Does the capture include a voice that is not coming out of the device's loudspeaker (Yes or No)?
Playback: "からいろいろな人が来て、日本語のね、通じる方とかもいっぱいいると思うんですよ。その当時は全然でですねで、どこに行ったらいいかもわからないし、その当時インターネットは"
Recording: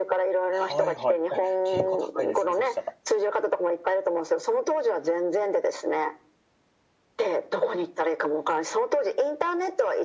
Yes